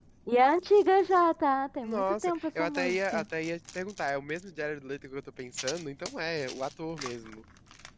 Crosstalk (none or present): present